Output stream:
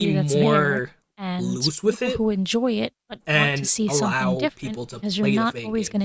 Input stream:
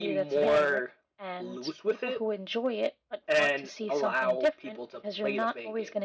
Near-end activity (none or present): none